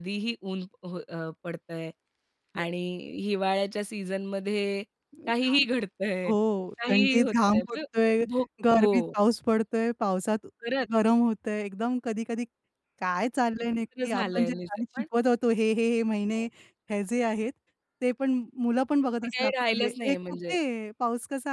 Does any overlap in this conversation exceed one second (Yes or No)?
Yes